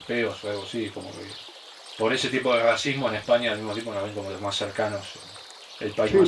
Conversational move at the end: taking over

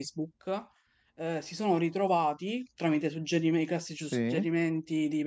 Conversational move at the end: listening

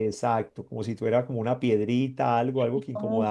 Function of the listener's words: listening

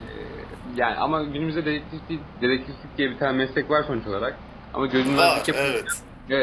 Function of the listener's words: listening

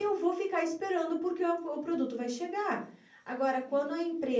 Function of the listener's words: listening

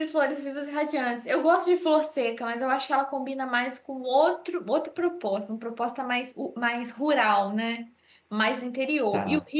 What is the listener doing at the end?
listening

